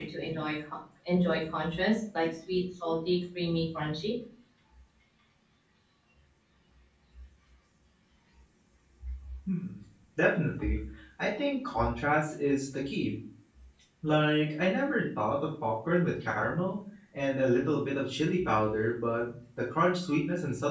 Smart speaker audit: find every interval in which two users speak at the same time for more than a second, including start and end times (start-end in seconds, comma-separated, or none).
none